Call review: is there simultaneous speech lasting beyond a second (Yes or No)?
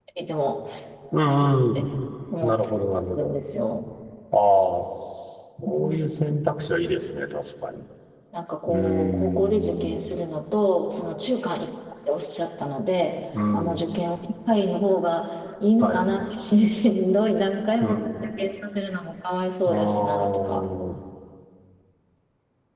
Yes